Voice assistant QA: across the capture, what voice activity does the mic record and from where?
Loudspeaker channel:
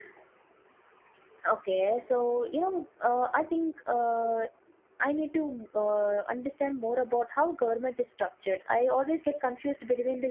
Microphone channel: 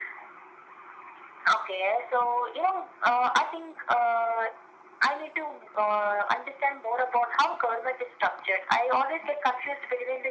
echo only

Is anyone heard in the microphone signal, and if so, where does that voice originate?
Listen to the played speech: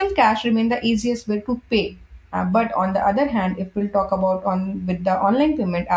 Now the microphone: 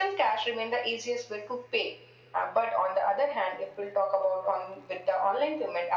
echo only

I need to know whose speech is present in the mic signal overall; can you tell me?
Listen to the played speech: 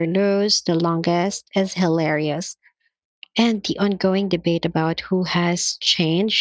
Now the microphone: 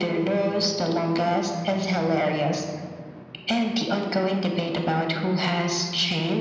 echo only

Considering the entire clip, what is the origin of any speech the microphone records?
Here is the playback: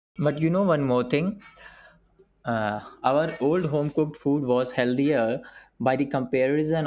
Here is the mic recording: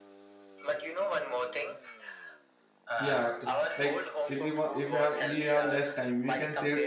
both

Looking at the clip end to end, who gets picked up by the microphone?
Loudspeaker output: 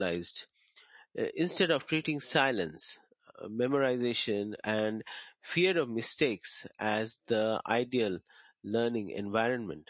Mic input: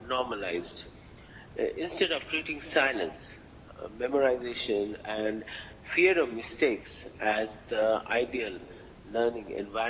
echo only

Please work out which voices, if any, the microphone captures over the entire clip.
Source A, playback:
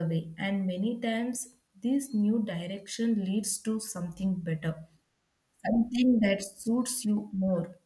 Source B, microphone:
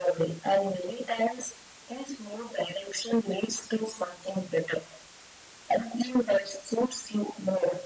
echo only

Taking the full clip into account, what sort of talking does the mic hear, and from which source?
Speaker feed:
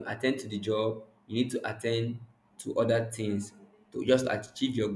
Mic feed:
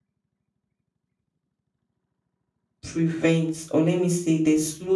user only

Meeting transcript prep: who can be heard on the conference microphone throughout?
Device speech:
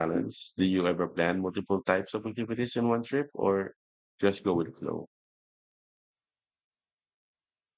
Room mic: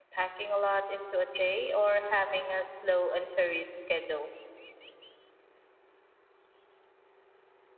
user only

